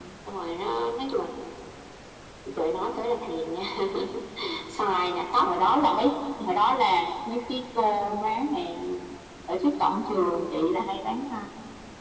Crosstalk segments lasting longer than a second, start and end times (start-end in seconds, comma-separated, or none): none